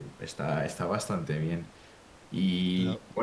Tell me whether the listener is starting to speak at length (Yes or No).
No